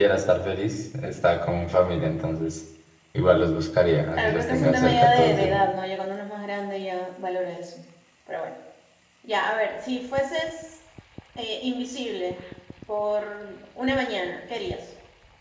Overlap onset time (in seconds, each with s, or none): 4.2 s